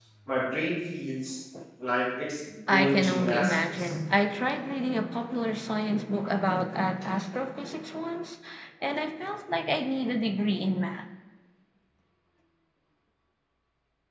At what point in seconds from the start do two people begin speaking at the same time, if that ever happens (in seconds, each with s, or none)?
2.7 s